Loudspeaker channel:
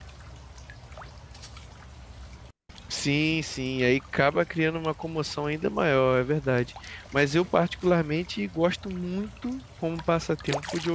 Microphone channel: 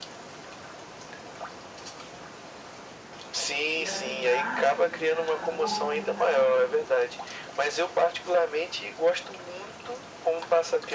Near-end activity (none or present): present